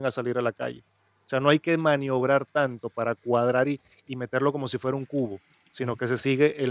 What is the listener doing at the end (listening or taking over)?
listening